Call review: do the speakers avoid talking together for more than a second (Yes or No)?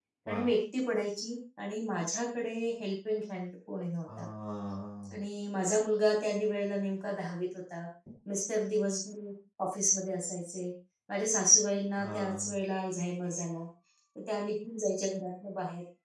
Yes